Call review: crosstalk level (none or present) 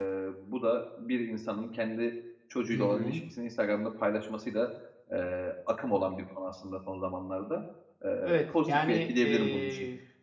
present